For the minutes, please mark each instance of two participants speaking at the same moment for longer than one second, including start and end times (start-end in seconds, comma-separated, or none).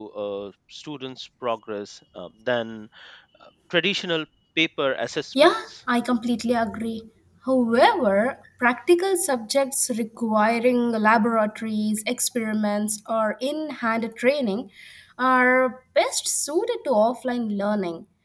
none